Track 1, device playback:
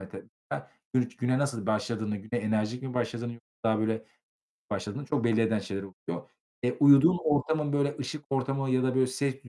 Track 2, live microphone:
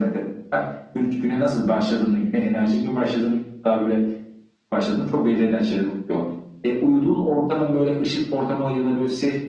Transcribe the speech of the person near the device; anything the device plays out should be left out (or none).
none